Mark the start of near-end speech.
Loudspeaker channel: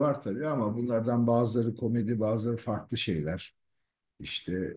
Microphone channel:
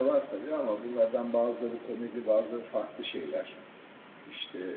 none

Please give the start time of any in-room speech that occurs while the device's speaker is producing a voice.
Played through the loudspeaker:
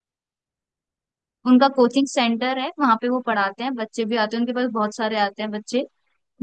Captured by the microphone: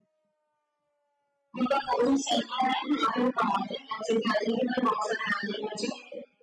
none

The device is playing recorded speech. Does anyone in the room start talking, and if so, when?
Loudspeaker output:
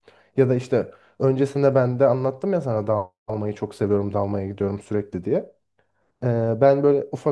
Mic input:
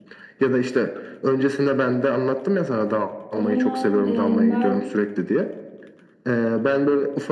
3 s

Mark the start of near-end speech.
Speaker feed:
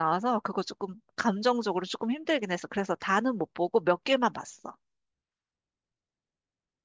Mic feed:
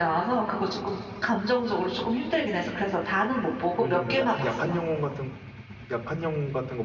4 s

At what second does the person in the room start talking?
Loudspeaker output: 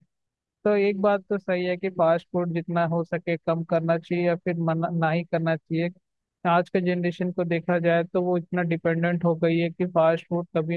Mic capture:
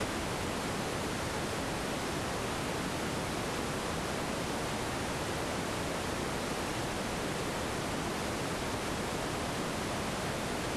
none

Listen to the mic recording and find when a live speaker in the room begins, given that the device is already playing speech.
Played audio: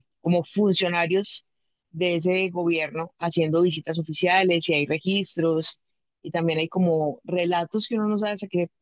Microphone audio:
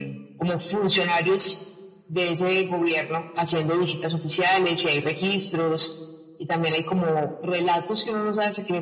none

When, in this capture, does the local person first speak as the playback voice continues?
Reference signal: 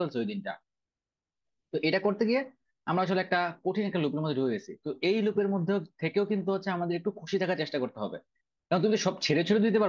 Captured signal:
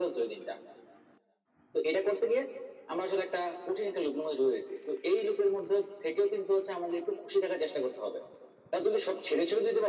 none

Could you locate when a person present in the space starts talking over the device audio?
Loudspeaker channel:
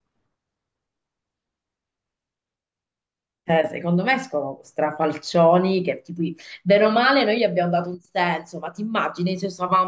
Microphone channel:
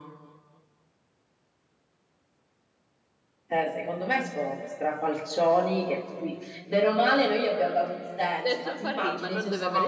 8 s

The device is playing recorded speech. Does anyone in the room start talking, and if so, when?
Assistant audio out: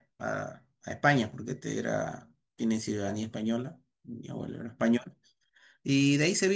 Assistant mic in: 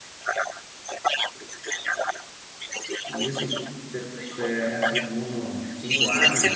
3 s

